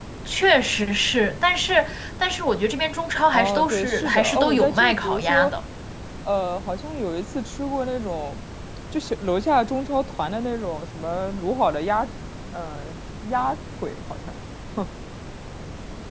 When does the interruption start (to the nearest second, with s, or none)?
3 s